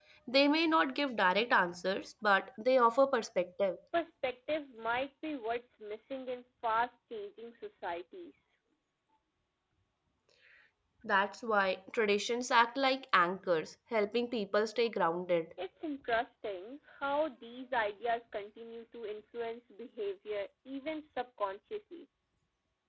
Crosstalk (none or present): none